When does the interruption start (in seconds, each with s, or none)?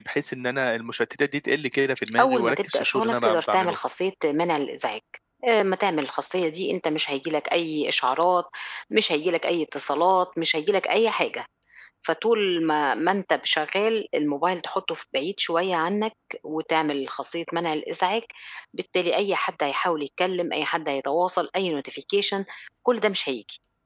2.2 s